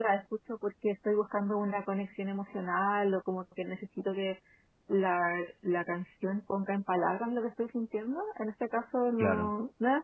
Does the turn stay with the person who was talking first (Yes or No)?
Yes